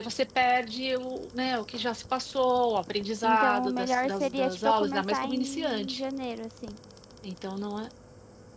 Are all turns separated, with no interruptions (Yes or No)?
No